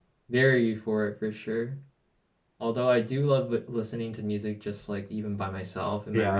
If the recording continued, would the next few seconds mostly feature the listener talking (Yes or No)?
No